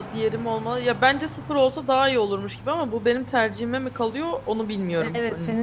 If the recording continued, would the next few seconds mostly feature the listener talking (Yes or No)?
Yes